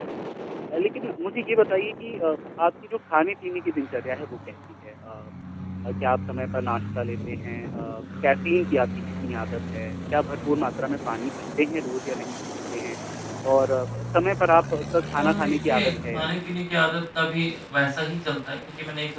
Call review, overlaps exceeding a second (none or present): present